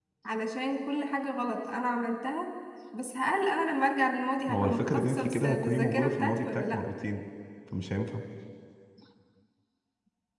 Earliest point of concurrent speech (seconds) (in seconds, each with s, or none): 4.5 s